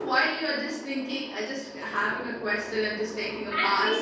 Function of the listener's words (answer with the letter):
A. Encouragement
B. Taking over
B